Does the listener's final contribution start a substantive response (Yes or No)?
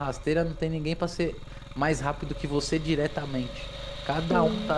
No